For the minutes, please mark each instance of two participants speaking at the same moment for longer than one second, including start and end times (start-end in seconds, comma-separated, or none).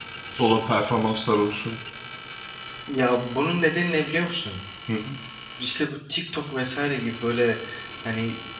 none